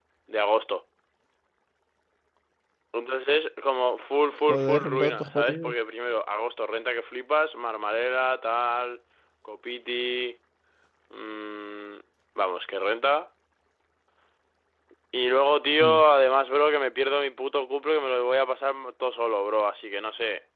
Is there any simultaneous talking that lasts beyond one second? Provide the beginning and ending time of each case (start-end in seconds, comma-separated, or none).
4.5-5.7